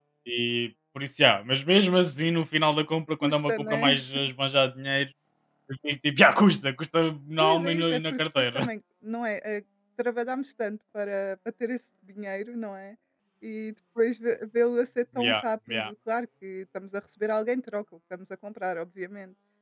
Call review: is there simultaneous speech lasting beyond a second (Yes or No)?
Yes